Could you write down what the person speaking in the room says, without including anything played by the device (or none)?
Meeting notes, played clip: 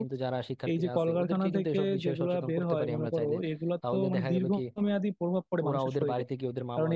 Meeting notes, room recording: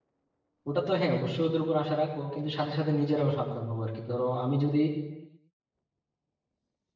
ওটা তো হ্যাঁ অবশ্যই ওদের উপর আশা রাখবো কিন্তু সাথে সাথে নিজেরাও সাবধান হবো আর কি ধরো আমি যদি